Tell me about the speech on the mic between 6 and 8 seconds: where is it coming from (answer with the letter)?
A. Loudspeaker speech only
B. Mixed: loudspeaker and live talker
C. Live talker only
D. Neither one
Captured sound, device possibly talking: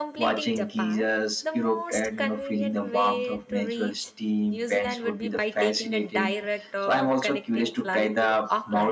B